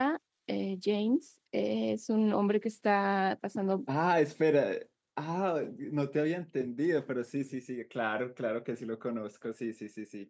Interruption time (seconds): none

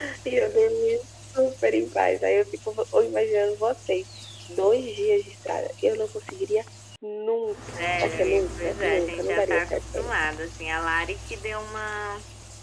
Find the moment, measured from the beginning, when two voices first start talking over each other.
7.8 s

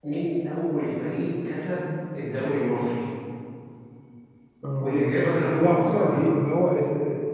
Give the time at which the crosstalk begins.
4.8 s

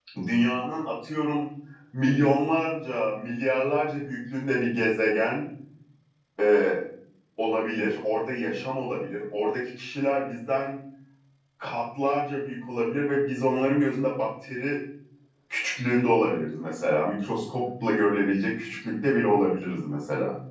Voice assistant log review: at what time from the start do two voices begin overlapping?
none

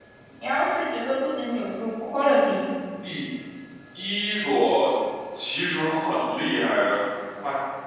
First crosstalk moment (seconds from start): none

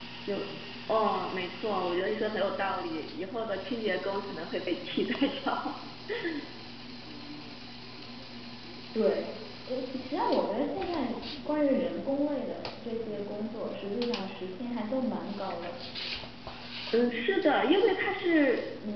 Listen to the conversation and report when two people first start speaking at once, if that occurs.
none

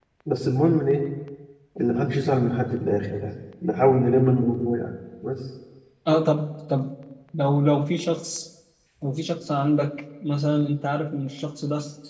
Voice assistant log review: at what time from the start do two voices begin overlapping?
none

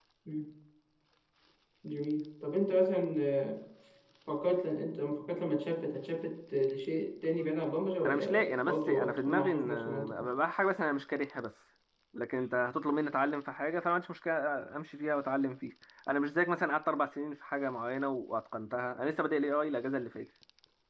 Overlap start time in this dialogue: 8.1 s

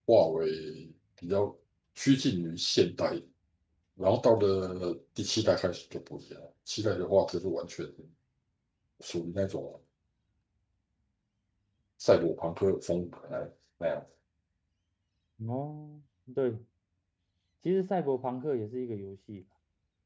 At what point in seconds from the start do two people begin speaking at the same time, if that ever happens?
none

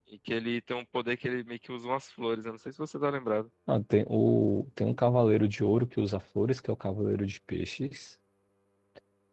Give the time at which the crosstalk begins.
none

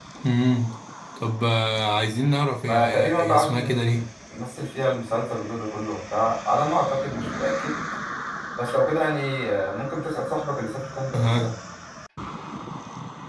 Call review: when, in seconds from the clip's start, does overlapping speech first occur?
2.6 s

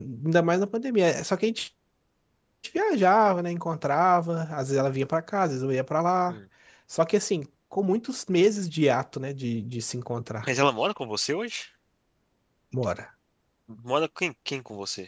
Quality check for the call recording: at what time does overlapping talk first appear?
none

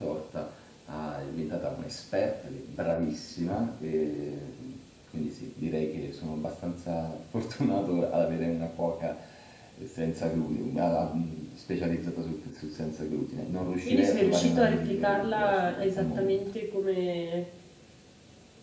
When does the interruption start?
13.8 s

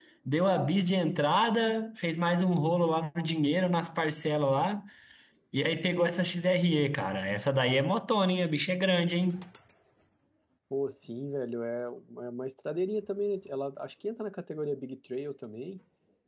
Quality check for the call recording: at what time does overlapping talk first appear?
none

